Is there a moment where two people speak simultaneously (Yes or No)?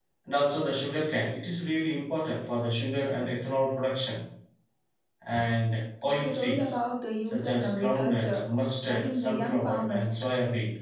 Yes